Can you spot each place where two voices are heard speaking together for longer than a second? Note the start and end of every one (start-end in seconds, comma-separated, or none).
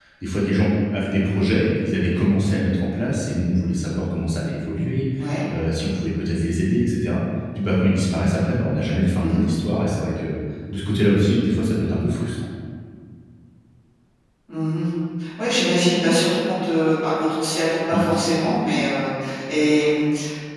none